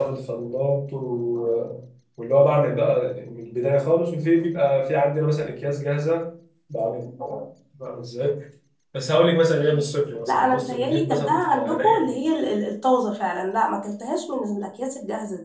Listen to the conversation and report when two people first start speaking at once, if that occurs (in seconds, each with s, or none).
10.3 s